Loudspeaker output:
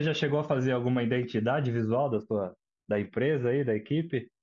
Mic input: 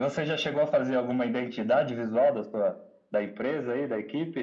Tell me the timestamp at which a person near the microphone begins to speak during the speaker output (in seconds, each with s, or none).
none